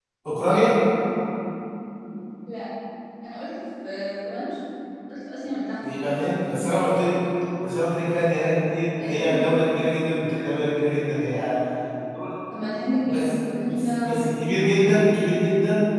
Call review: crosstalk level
present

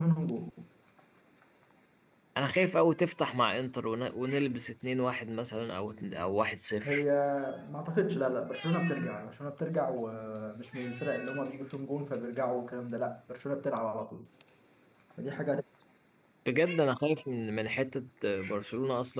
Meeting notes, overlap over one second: none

